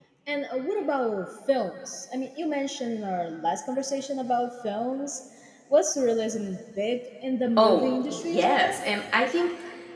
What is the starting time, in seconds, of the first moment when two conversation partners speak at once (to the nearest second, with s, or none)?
8 s